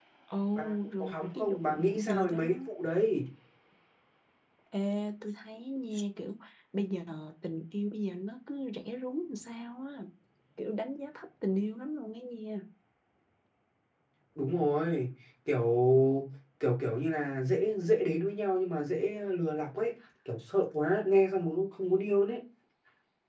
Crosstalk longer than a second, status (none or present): present